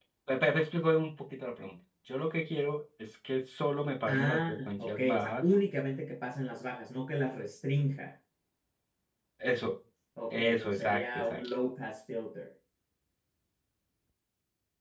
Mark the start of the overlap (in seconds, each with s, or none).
4.1 s